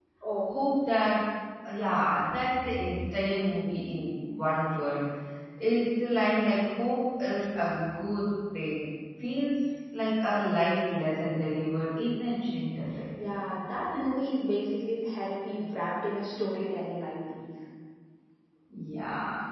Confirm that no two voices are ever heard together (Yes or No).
Yes